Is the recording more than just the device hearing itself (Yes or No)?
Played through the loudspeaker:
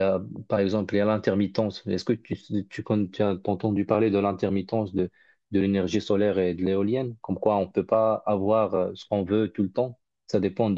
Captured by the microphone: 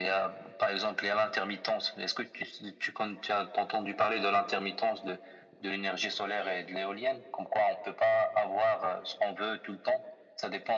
No